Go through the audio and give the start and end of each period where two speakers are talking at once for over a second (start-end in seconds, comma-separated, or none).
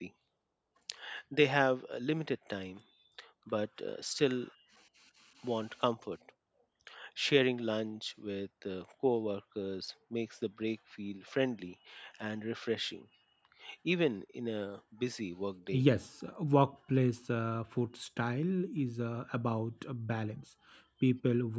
none